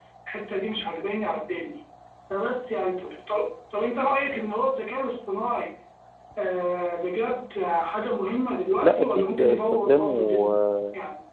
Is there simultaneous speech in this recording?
Yes, from 8.8 s

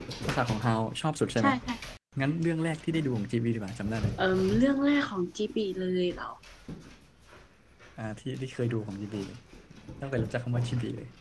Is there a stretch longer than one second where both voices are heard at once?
No

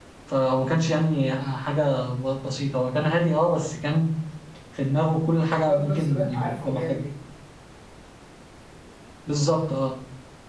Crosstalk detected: Yes, from 5.5 s

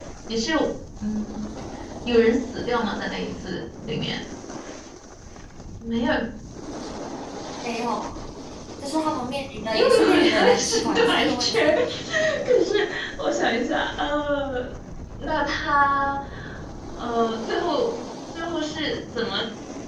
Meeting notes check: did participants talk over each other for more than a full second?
Yes, from 9.7 s

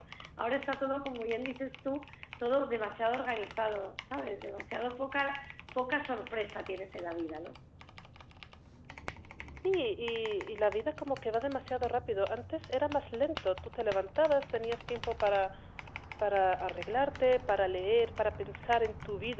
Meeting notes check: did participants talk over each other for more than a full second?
No

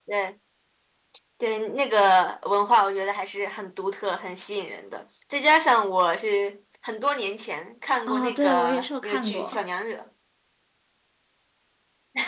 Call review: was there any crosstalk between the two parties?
Yes, from 8.1 s

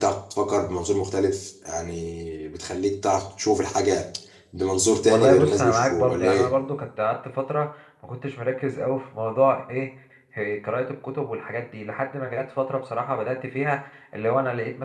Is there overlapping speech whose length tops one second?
Yes, from 5.1 s

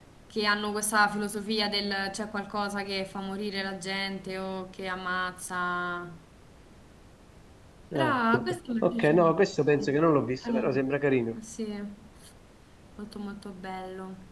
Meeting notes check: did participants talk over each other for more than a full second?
No

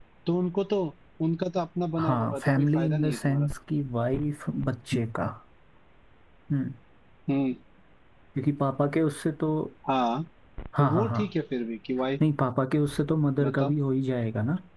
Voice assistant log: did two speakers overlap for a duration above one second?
Yes, from 2.0 s

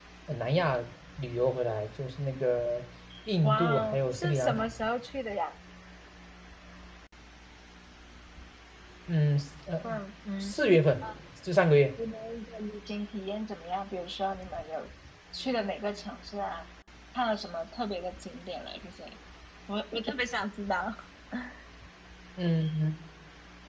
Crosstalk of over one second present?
Yes, from 3.4 s

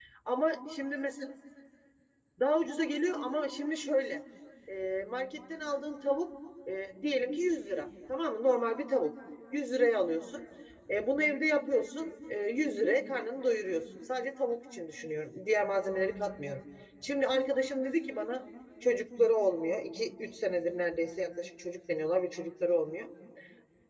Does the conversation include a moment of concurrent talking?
No

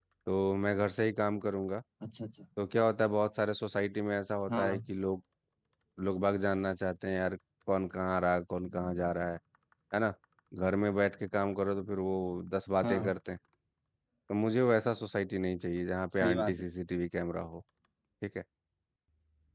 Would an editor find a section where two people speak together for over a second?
No

